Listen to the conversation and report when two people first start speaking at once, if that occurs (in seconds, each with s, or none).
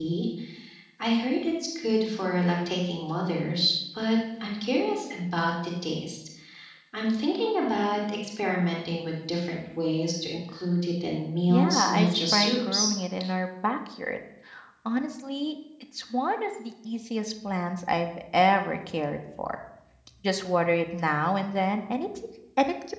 11.5 s